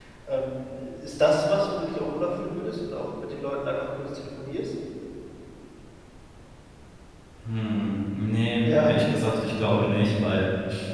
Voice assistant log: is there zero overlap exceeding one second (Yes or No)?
Yes